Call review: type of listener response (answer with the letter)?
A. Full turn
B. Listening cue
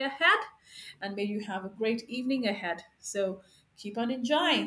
A